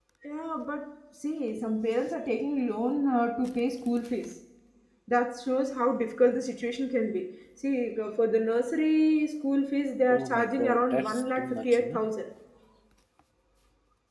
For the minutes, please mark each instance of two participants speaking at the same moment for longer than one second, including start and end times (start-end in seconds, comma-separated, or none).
10.1-12.0